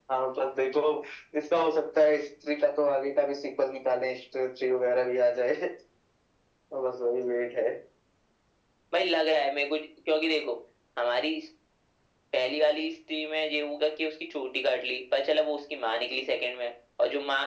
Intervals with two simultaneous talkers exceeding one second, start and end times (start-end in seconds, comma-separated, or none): none